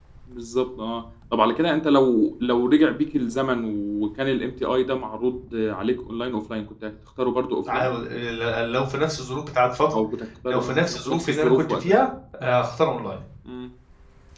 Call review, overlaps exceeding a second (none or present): present